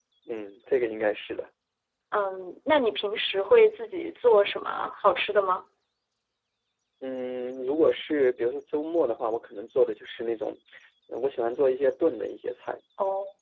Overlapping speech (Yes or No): No